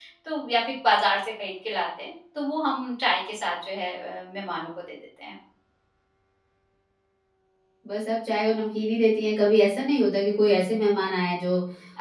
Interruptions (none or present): none